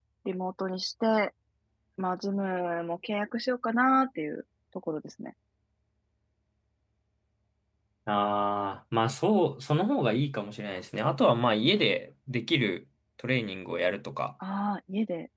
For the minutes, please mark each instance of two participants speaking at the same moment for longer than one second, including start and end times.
none

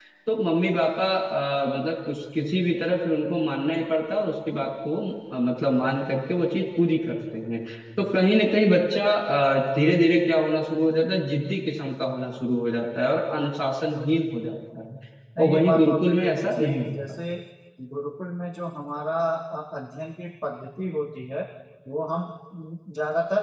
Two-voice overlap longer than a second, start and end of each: 15.4-16.9

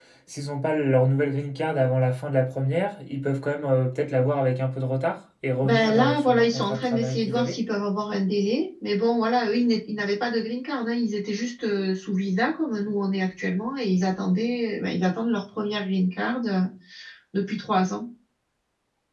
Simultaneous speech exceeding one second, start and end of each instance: 5.6-7.6

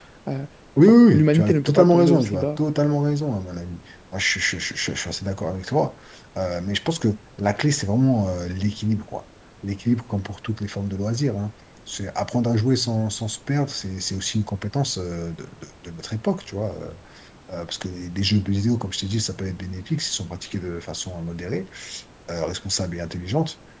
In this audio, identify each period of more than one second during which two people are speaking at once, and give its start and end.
0.8-2.6

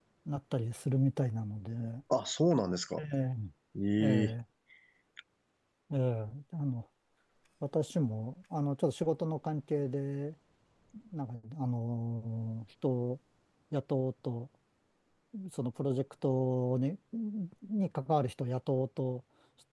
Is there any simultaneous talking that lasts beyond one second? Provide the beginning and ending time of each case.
none

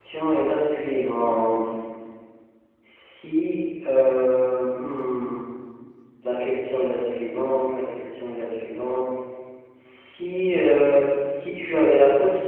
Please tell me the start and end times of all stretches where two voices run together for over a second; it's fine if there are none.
none

